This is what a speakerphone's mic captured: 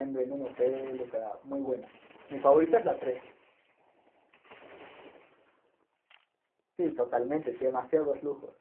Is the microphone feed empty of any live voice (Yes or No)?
No